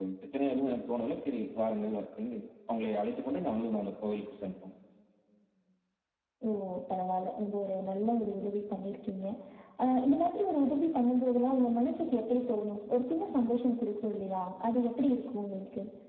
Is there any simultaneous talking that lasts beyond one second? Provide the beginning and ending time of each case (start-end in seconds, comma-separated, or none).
none